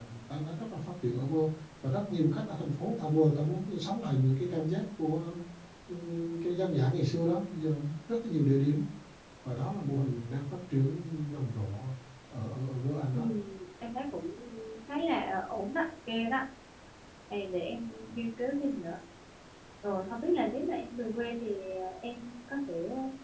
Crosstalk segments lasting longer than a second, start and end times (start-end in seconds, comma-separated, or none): none